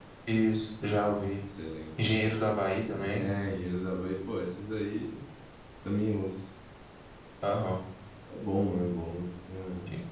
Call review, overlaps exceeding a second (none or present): none